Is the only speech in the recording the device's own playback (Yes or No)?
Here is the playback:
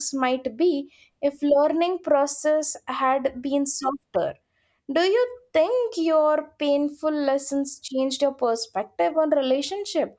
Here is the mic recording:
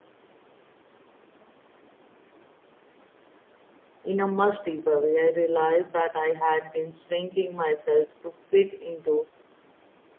No